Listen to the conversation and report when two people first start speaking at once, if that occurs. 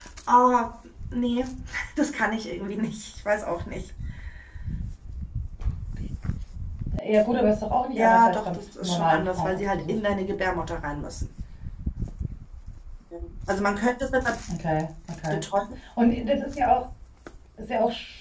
8.0 s

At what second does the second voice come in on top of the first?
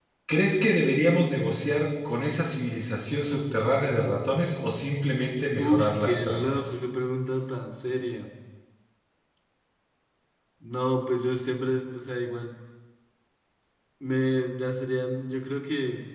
5.6 s

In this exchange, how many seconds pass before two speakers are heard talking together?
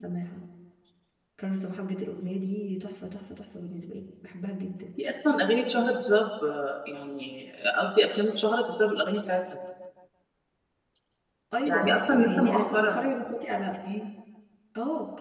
11.7 s

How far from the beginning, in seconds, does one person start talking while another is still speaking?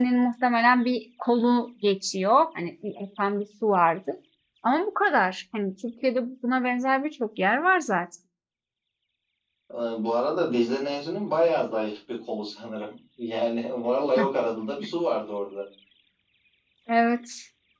none

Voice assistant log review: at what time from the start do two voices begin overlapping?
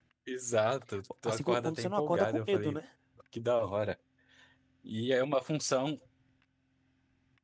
1.3 s

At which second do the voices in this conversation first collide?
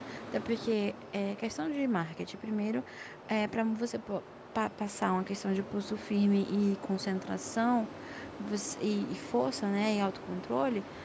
none

